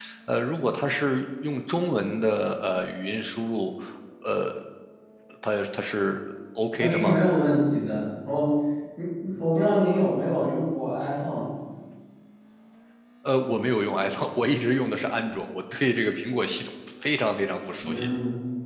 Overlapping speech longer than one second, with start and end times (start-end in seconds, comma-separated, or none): none